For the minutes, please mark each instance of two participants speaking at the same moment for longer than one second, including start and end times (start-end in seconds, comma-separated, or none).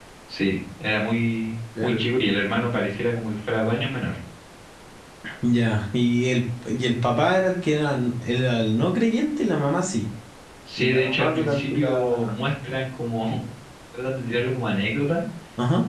10.8-12.3